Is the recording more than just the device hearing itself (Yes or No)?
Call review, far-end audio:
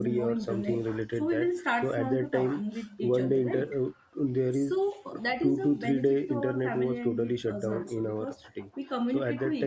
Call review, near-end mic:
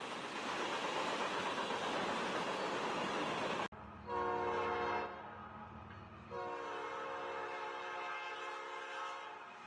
No